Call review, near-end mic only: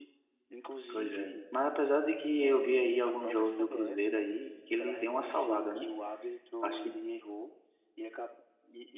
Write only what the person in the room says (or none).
Pois é. Mas apesar de que eu vi aí alguns jogos do Cruzeiro aí, que ele deu uma salvada, né? Acho que.